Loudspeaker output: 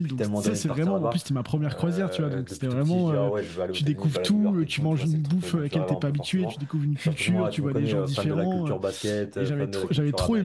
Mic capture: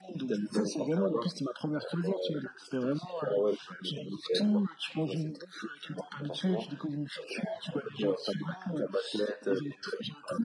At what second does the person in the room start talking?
none

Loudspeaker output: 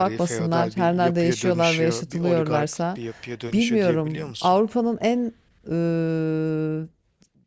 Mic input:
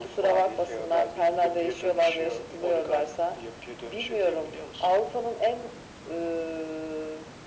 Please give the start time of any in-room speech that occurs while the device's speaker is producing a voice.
none

